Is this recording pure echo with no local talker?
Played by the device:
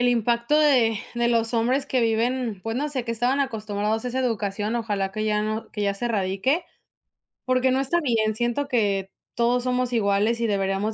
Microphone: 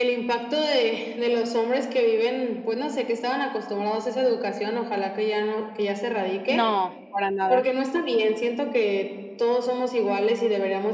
No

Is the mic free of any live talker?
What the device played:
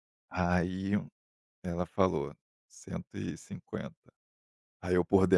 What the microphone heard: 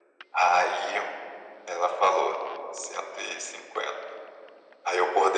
Yes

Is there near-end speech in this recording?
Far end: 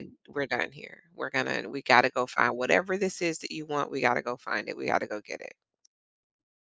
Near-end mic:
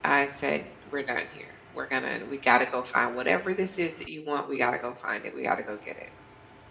No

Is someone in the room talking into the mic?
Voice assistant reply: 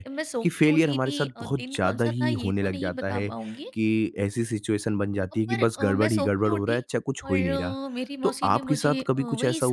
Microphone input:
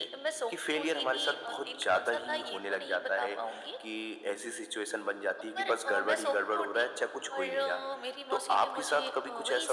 No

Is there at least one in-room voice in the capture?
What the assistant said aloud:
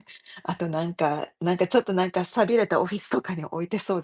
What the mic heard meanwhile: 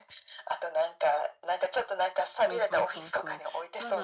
Yes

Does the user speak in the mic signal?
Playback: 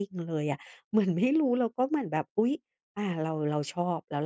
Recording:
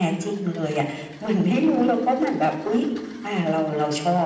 No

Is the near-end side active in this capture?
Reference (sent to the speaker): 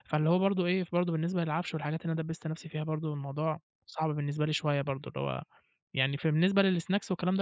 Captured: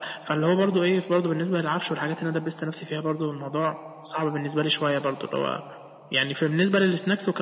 No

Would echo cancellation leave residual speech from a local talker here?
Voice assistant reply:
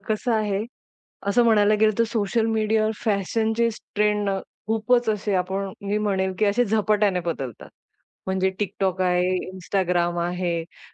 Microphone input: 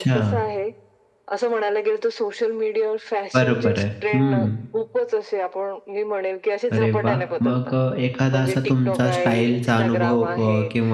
Yes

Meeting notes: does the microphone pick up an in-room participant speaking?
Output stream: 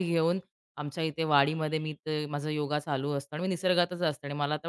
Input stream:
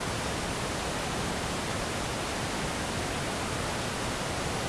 No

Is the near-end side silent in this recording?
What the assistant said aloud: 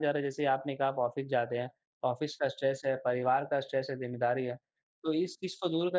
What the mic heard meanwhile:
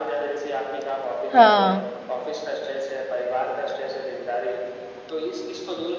No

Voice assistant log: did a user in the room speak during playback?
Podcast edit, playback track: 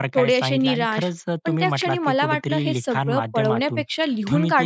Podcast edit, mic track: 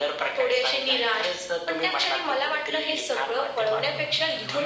Yes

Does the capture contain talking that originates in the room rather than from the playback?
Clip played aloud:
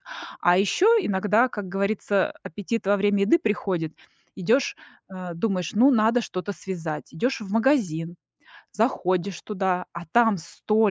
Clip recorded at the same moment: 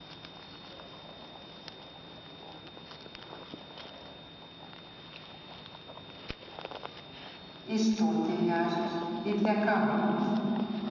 Yes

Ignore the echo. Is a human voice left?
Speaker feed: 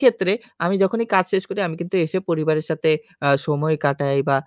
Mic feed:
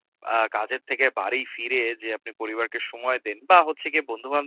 Yes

